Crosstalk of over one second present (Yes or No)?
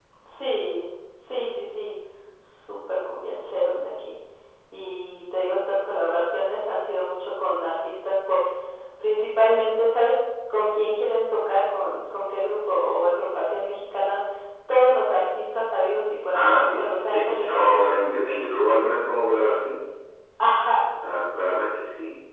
Yes